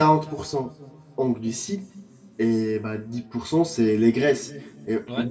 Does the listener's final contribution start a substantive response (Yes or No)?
No